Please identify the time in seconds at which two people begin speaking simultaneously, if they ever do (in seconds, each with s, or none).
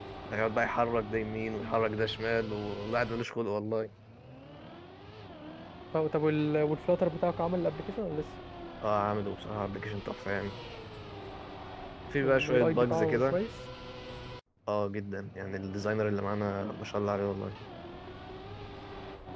12.2 s